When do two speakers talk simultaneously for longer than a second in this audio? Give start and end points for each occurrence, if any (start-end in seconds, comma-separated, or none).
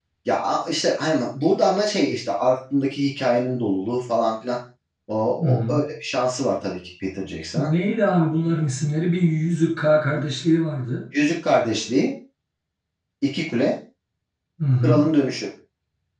none